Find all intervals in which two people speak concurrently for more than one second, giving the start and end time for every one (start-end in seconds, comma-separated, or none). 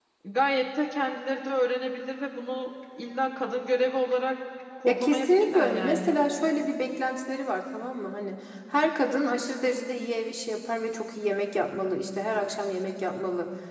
4.9-6.2